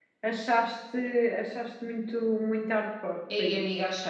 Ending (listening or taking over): taking over